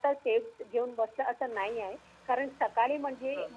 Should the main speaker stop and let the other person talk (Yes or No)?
No